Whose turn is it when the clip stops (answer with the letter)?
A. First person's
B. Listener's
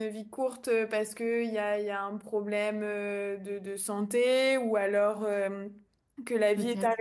A